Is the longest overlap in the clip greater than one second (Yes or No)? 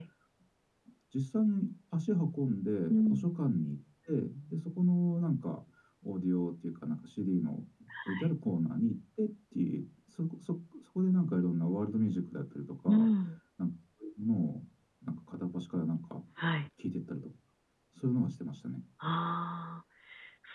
No